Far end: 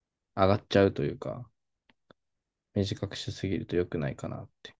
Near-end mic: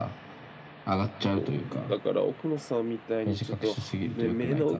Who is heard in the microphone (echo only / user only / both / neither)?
both